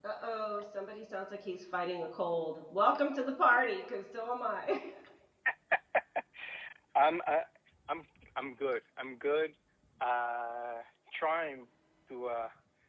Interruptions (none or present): none